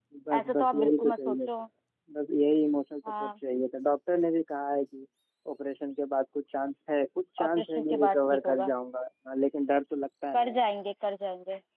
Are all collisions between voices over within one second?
No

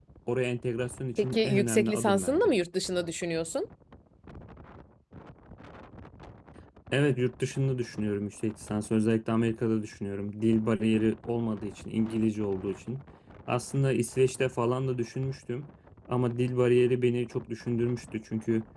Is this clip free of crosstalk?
No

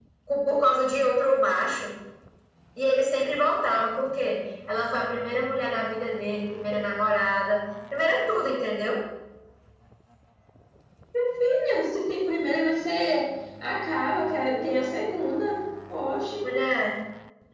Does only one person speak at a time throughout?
Yes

